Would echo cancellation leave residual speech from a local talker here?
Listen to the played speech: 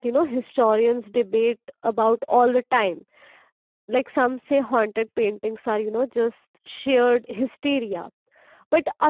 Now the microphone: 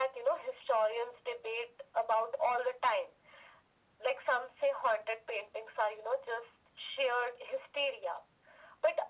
No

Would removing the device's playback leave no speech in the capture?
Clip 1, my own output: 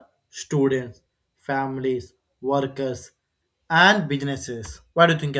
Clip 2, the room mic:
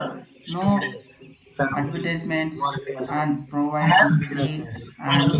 No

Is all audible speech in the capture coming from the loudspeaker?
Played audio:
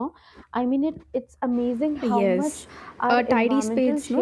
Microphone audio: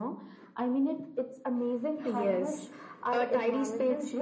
Yes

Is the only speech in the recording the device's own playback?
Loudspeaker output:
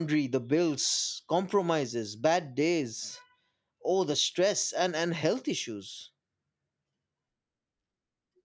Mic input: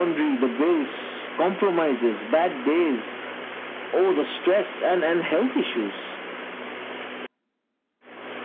Yes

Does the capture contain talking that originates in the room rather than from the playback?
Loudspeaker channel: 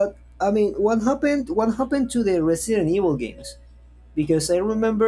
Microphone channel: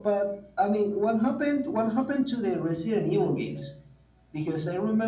No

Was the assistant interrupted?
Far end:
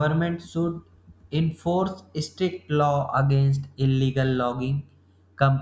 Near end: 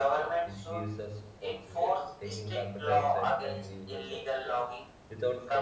Yes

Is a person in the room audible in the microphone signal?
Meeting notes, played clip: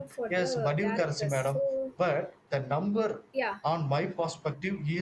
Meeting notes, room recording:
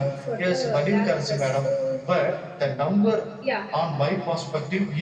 No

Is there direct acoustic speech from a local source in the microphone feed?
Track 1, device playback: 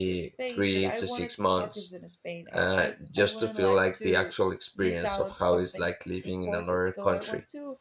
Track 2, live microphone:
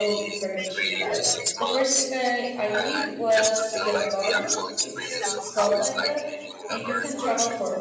Yes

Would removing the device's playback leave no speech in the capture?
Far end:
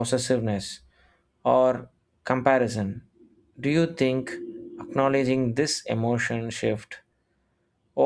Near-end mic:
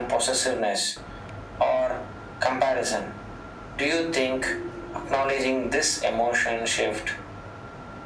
Yes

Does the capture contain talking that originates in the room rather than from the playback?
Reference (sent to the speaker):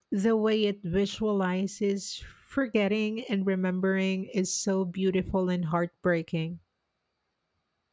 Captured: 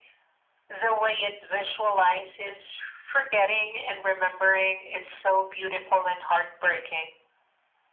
No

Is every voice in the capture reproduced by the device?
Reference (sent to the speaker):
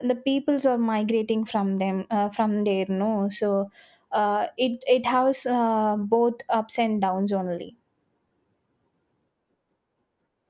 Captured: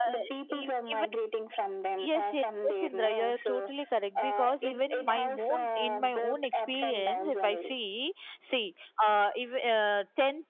No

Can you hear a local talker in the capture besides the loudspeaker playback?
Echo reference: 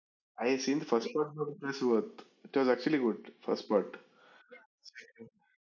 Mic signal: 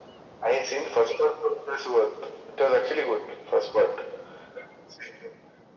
No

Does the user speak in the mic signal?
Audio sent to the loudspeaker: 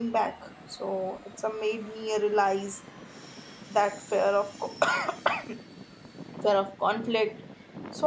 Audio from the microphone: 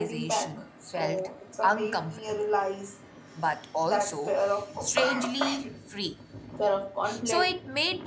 Yes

